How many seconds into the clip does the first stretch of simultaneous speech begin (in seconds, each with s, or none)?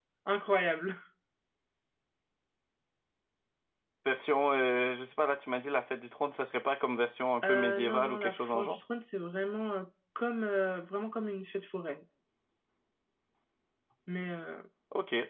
7.4 s